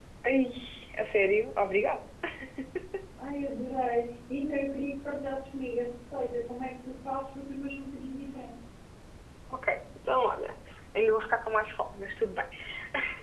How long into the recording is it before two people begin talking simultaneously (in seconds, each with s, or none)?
none